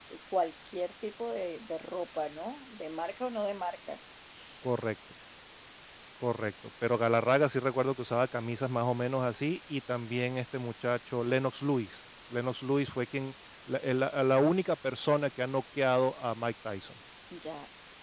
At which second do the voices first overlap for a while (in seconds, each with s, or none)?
none